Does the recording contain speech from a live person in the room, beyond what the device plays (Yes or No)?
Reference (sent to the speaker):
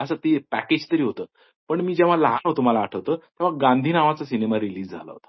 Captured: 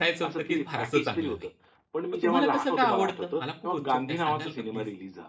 Yes